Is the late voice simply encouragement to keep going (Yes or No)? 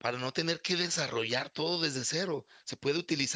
Yes